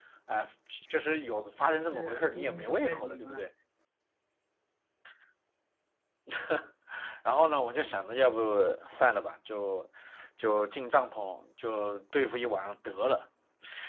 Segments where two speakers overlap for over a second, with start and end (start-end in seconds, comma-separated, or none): 1.8-3.4